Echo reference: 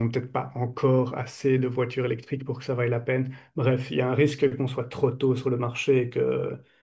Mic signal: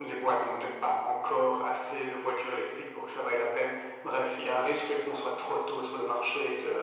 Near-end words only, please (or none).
none